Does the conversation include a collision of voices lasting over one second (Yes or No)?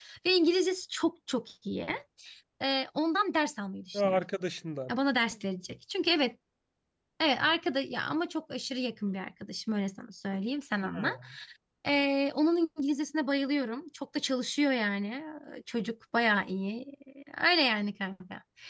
No